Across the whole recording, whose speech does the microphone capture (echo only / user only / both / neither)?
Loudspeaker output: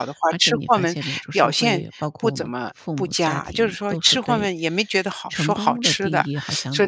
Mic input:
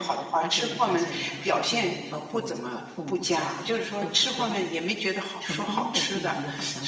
echo only